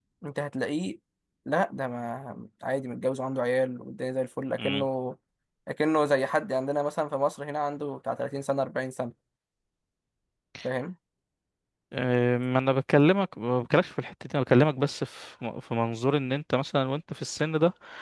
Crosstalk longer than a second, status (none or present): none